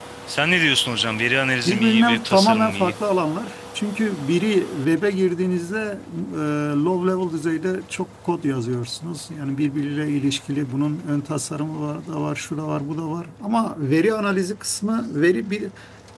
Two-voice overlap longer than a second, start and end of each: 1.6-3.0

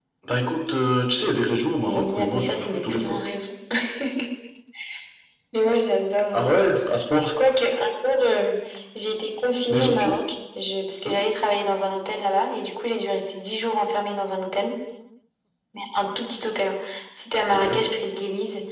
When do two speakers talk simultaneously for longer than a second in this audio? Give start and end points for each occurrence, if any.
1.8-3.2

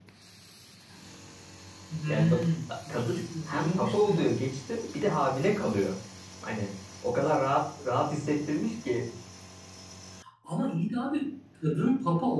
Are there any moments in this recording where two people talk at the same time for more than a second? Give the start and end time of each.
2.1-4.5

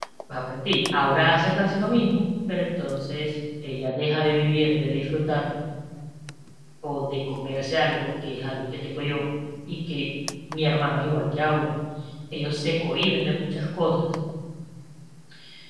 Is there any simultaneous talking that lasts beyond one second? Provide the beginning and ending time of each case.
none

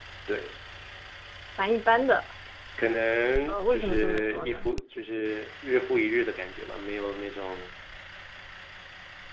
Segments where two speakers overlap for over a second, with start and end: 3.5-4.7

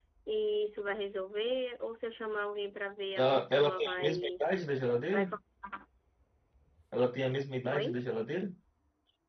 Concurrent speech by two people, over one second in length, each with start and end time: 3.2-4.4

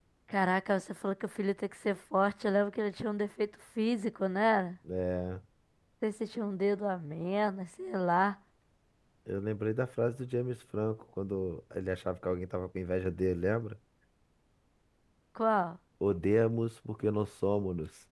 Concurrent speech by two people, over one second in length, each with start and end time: none

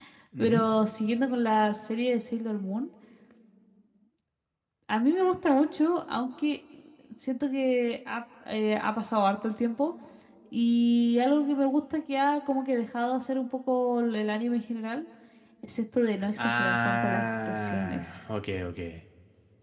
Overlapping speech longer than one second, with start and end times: 16.4-18.1

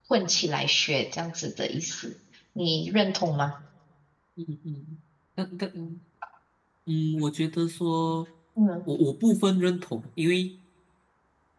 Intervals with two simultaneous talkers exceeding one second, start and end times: none

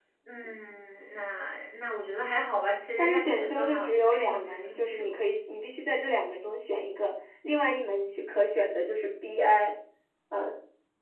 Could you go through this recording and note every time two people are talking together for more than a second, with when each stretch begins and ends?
3.0-5.2

